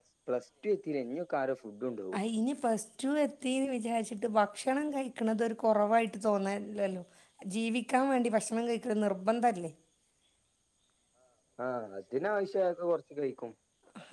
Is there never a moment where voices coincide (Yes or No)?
Yes